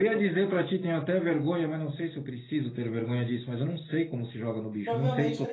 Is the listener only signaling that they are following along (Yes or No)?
No